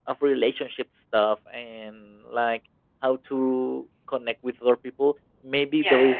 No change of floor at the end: Yes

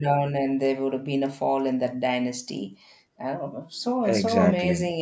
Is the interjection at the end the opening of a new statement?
No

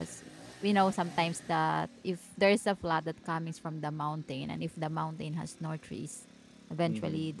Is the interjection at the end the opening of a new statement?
No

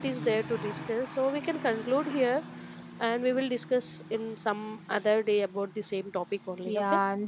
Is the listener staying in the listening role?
No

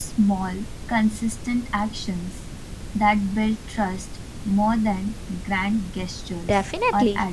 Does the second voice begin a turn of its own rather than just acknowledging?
Yes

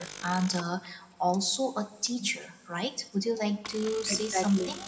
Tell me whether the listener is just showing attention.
Yes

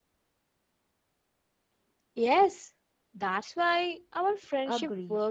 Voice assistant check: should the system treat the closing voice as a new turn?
Yes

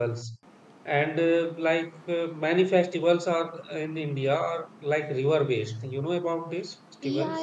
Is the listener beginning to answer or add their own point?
Yes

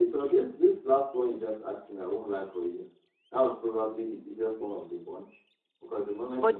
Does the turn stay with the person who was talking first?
Yes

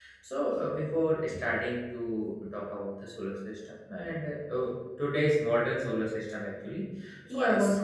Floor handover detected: Yes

